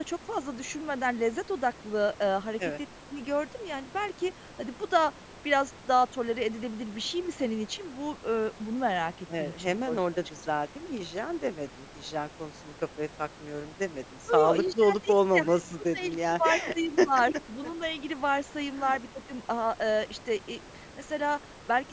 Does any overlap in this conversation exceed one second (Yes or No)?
Yes